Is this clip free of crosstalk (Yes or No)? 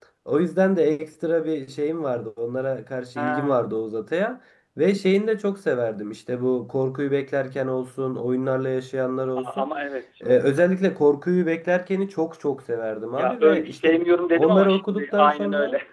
No